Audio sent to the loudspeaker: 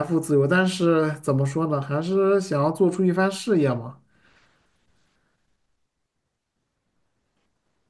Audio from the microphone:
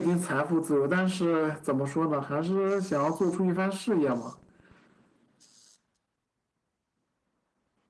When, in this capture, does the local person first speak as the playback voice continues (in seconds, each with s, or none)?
none